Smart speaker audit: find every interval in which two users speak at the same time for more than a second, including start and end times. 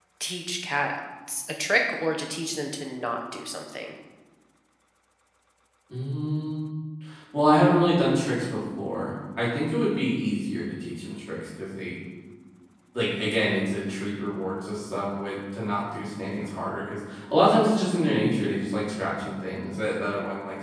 none

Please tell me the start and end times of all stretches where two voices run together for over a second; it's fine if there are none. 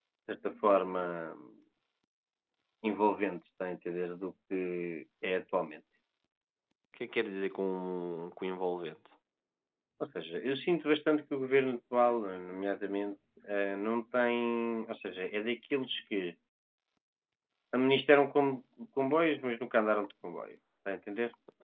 none

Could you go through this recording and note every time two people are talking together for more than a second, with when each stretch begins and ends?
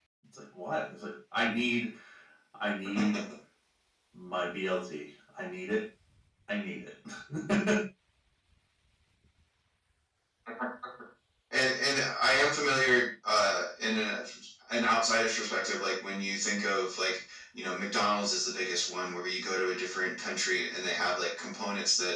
none

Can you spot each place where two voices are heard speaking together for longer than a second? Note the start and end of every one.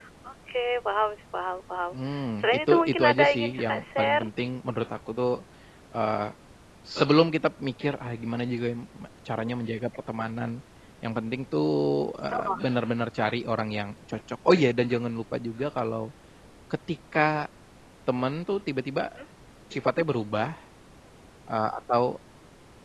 2.4-4.2

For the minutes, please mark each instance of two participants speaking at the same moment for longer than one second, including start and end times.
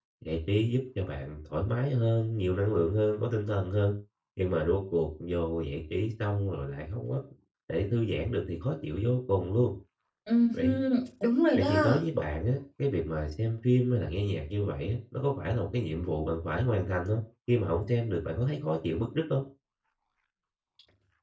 none

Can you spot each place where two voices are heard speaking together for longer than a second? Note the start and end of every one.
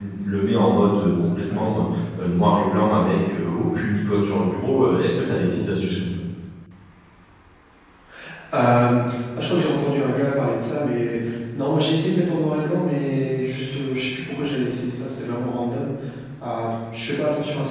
none

